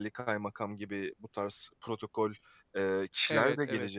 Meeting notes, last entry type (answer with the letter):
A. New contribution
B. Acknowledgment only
A